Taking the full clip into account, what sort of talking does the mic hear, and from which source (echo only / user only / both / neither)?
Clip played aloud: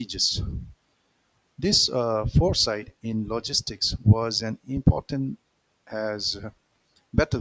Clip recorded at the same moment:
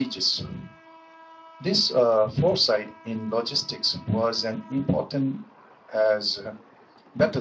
echo only